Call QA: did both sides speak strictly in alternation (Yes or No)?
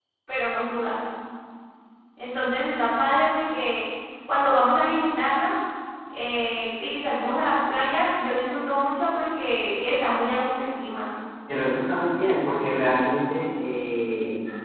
Yes